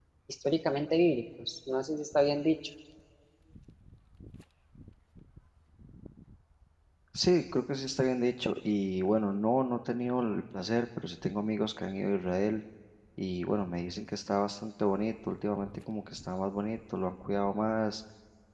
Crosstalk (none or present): none